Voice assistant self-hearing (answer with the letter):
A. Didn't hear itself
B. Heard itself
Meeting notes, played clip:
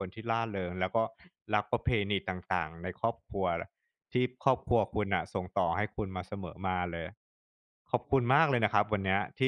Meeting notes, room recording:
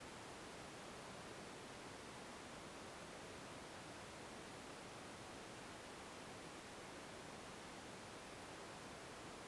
A